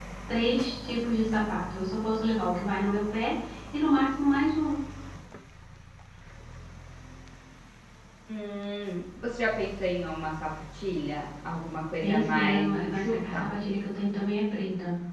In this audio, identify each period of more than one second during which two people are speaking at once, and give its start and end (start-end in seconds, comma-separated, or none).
12.0-13.5